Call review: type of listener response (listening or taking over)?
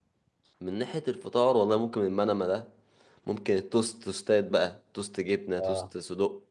listening